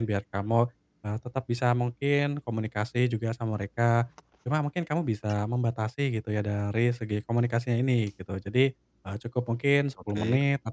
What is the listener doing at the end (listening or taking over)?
listening